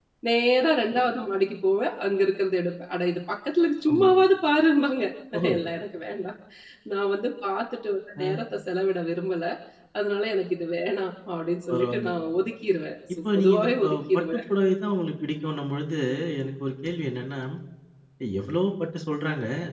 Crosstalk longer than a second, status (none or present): present